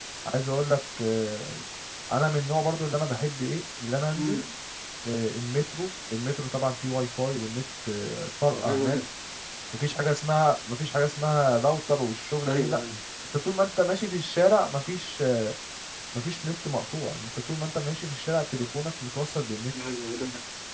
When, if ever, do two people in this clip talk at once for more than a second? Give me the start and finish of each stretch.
none

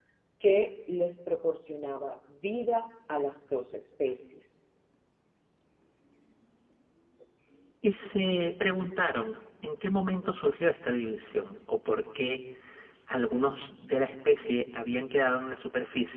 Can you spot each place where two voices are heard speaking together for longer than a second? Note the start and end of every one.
none

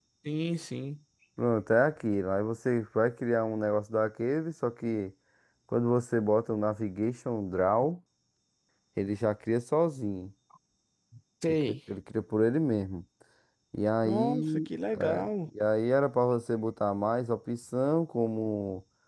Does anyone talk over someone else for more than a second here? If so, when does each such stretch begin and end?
14.0-15.3

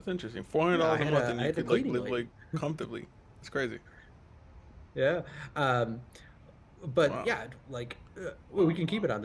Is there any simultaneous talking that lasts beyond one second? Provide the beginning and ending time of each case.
0.7-2.2

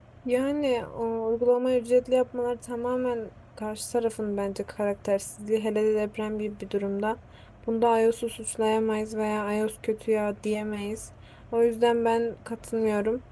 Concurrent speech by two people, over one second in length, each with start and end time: none

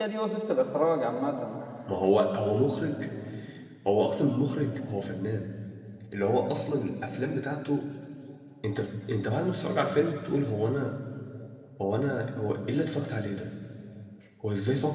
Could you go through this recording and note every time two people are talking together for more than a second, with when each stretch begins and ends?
none

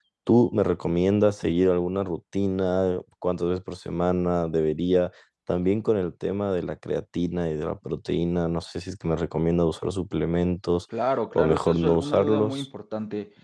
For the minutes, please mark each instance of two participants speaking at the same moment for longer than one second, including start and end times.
11.3-12.7

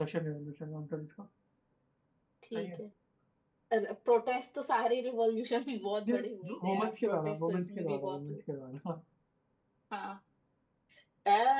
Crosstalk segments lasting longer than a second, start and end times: 6.6-8.4

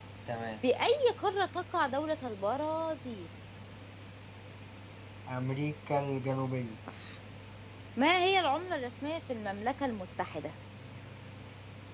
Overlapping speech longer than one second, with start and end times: none

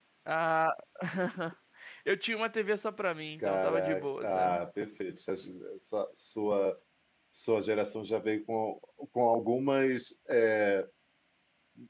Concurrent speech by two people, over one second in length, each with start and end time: 3.4-4.6

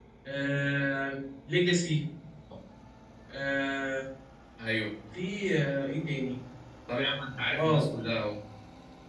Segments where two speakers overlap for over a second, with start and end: none

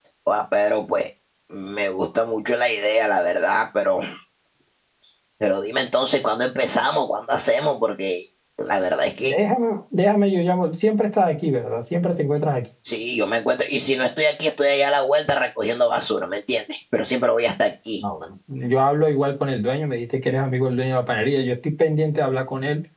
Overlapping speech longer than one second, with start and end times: none

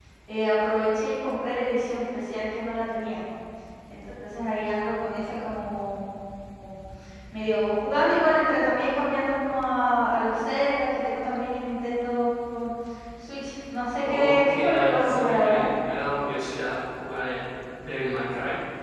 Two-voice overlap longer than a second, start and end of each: 14.0-15.6

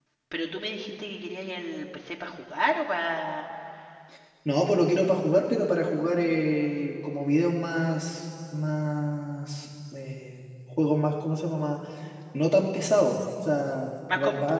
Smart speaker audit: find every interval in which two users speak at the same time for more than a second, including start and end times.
none

